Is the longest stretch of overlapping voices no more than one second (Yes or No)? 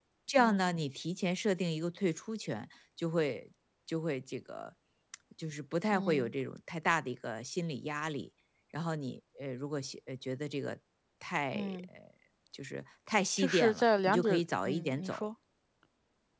No